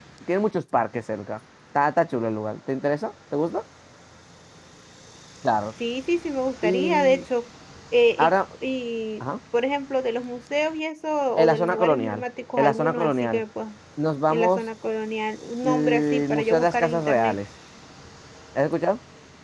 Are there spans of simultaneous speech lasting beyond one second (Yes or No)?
Yes